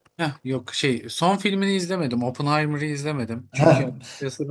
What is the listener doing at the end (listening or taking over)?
listening